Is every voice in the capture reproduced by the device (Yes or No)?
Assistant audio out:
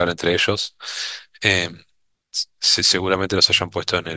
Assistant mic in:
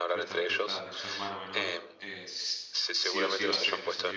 No